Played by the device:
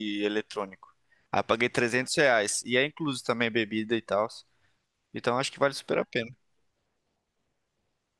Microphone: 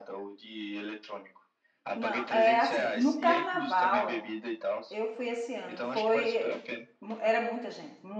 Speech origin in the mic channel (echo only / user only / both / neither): both